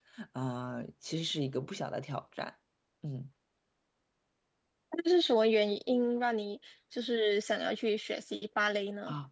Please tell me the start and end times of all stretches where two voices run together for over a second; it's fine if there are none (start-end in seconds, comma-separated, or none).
none